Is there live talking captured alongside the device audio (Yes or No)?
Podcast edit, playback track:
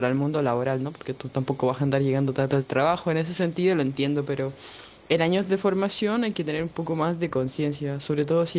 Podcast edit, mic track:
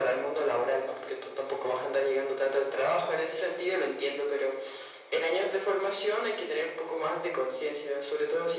No